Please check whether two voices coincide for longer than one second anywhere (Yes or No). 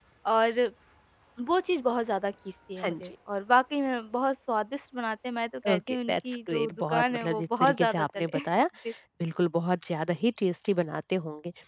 Yes